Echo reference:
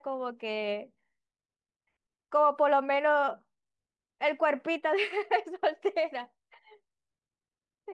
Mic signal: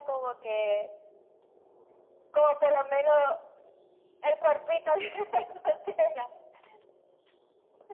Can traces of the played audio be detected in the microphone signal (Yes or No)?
Yes